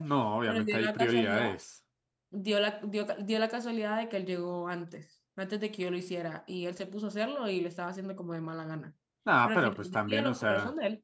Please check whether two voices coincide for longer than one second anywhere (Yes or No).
Yes